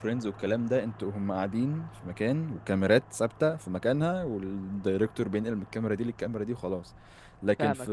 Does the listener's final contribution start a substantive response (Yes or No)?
No